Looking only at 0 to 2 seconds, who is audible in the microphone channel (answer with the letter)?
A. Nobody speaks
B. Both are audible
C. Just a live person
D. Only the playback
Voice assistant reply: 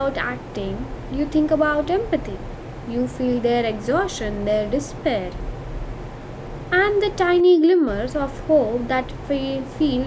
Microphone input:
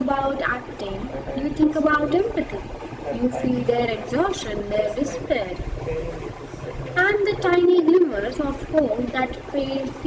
B